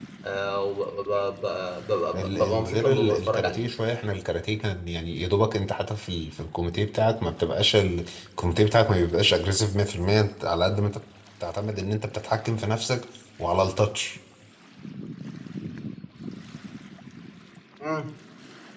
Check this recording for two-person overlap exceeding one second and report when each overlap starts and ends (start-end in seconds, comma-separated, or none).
2.1-3.6